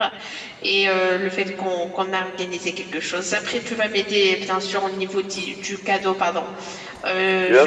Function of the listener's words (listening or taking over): taking over